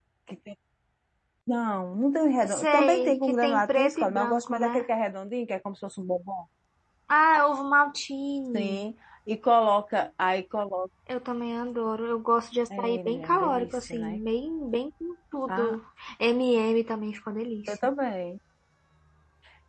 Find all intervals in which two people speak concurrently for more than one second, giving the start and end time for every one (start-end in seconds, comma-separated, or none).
2.5-4.8, 12.8-14.2